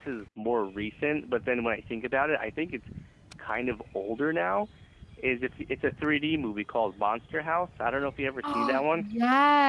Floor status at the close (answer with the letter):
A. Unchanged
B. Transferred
B